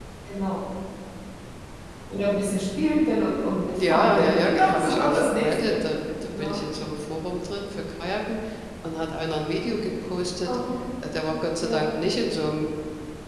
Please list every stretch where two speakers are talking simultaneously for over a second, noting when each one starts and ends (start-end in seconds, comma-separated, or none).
3.8-5.8